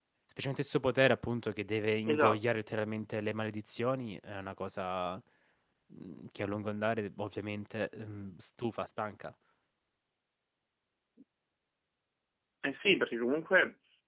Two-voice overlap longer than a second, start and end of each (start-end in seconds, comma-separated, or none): none